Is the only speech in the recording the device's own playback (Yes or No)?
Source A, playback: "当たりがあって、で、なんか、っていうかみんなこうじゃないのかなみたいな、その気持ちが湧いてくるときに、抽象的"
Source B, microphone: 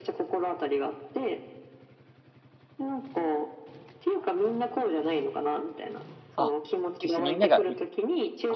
No